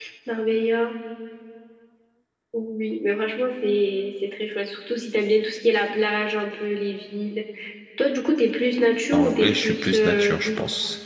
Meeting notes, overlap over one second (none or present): present